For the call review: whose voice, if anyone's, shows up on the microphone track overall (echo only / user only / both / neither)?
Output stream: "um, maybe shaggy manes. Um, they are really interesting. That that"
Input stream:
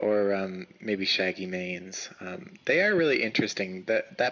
echo only